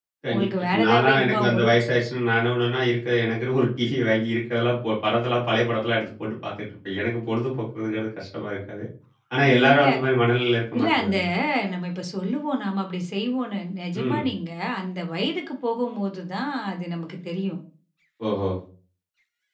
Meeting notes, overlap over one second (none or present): present